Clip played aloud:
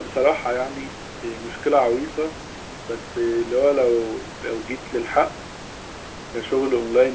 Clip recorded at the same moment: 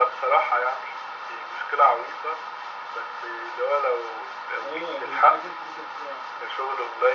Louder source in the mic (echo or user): echo